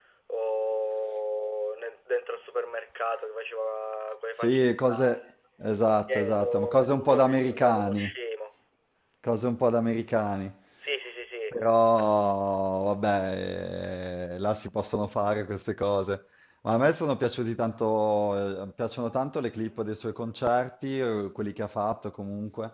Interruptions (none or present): present